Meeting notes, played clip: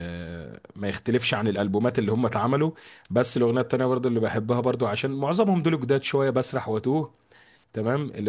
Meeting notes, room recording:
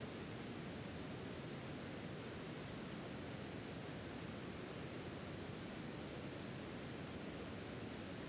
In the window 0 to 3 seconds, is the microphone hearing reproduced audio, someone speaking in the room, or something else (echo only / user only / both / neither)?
neither